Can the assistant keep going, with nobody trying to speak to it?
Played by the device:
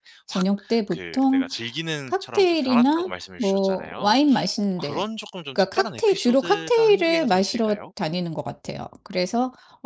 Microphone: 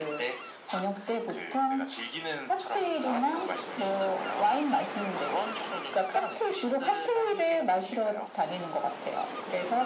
Yes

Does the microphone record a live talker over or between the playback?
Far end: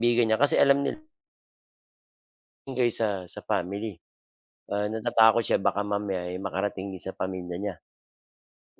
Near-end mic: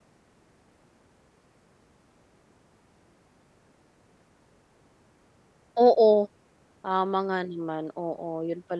Yes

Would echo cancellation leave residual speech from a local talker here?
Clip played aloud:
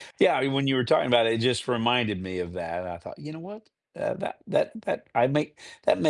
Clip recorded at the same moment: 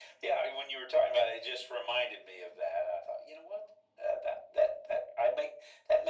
No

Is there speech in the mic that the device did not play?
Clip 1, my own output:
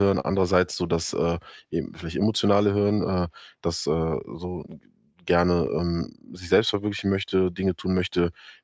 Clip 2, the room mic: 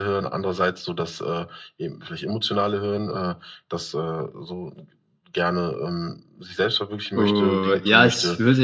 Yes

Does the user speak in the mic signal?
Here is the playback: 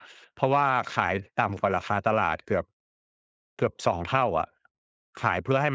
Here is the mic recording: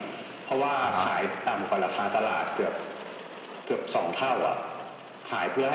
Yes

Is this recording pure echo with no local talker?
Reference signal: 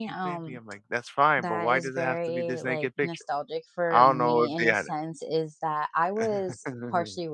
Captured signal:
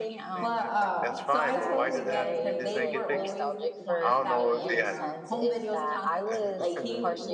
No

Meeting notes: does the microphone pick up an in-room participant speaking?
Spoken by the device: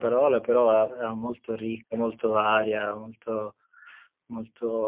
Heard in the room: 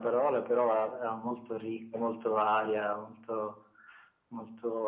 No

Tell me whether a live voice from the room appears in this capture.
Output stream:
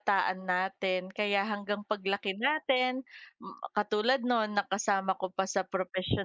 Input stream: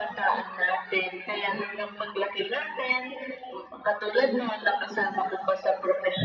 No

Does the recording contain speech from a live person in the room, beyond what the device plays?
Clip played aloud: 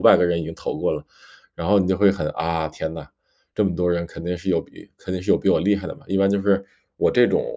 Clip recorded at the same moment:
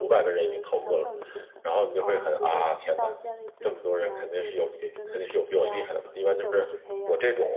Yes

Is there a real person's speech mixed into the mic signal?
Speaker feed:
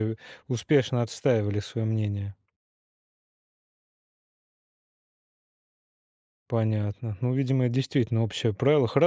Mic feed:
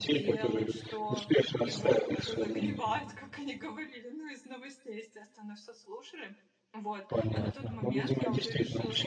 Yes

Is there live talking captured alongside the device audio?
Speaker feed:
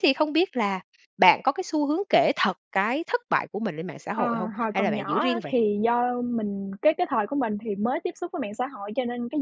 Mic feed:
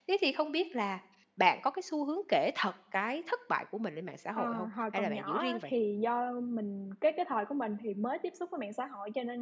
No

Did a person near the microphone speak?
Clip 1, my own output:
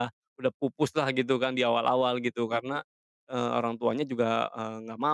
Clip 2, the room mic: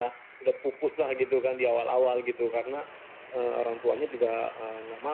No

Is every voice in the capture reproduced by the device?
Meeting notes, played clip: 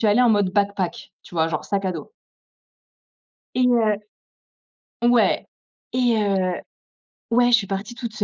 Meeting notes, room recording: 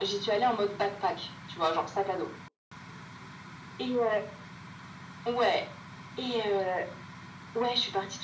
Yes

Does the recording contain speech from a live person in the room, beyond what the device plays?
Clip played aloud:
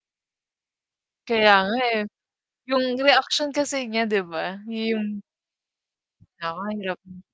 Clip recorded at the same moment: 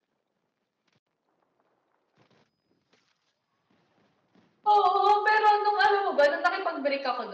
Yes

